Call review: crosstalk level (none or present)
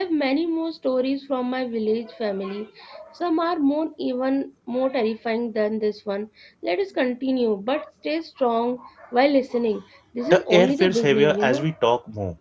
present